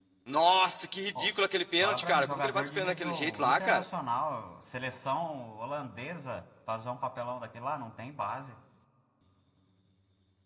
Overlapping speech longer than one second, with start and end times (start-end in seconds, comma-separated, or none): 1.8-3.8